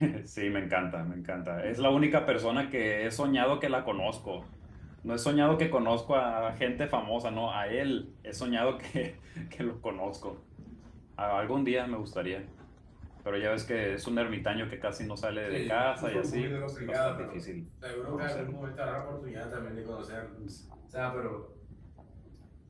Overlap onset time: 15.4 s

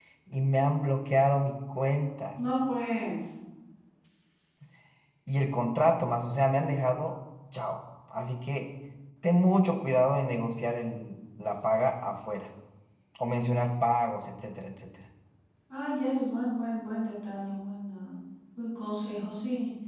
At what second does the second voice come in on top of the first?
none

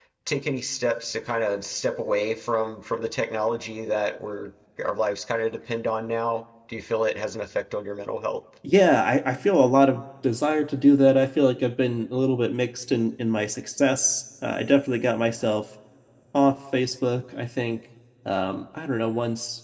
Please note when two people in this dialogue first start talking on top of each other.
none

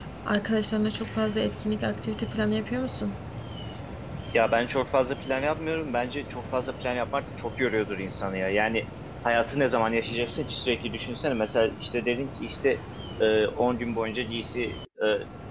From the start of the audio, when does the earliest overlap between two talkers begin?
none

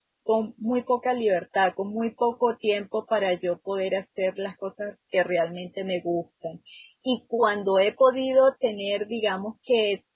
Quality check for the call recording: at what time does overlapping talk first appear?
none

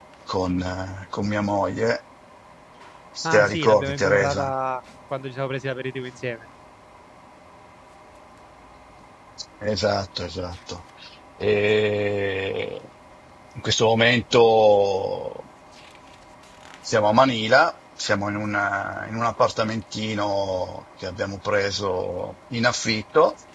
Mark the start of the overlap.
3.2 s

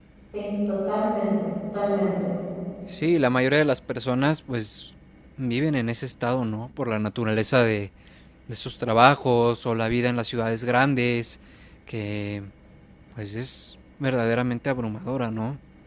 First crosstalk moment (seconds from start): none

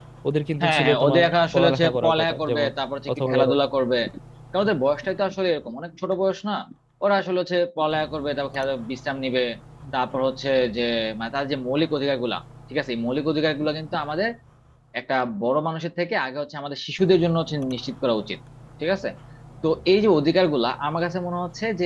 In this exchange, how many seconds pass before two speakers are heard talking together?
0.6 s

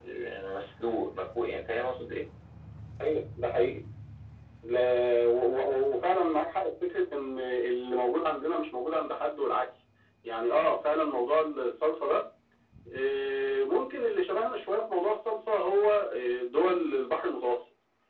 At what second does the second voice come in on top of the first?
none

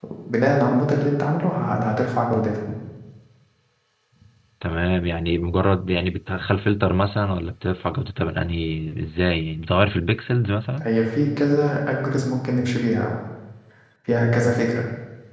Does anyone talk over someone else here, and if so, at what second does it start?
none

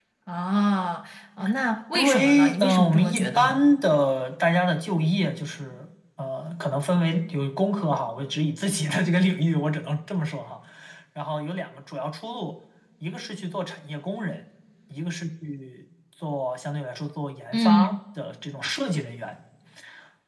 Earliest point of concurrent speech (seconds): 1.9 s

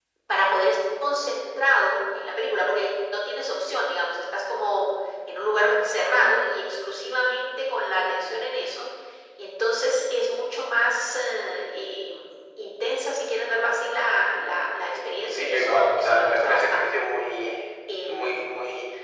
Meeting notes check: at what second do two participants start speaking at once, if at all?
15.3 s

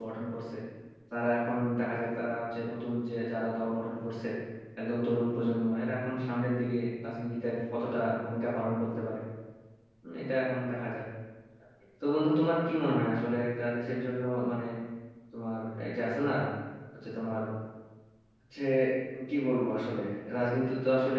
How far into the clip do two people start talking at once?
none

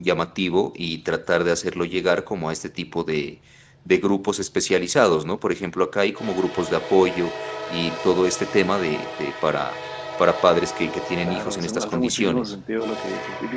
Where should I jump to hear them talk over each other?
11.2 s

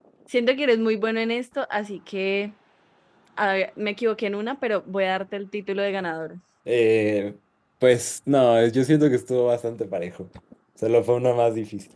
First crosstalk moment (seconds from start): none

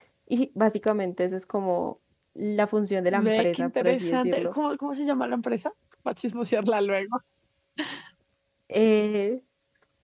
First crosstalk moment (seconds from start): 3.1 s

